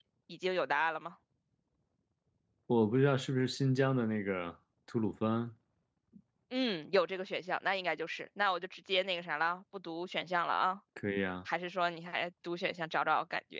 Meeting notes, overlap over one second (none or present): none